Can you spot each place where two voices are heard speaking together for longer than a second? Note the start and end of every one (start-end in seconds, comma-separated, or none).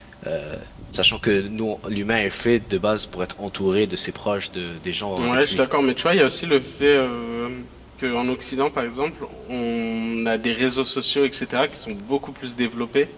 none